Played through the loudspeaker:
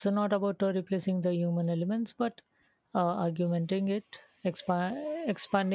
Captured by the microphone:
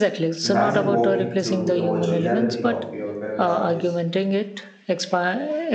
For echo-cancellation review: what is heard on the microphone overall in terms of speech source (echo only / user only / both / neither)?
both